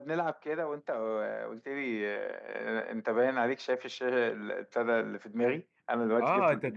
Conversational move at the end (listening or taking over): taking over